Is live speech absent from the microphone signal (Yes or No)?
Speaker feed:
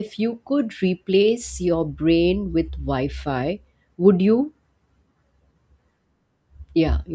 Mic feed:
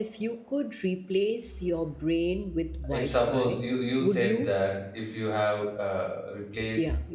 No